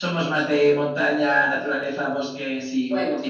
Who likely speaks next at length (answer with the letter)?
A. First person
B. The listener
B